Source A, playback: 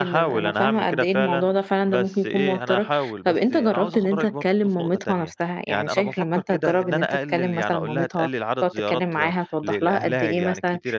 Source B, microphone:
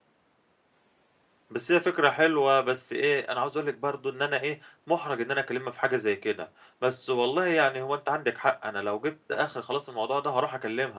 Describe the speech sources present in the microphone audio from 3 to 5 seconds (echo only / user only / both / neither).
user only